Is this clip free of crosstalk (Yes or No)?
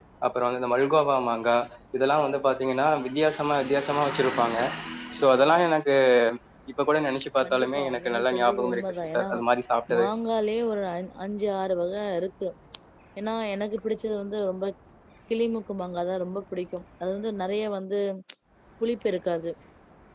No